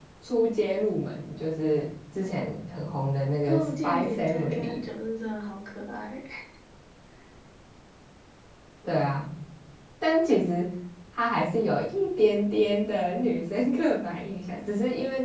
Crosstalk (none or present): present